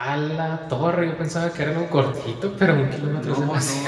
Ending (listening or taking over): taking over